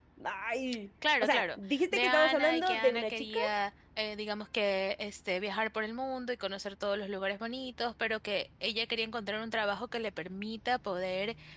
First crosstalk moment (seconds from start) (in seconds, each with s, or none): 1.2 s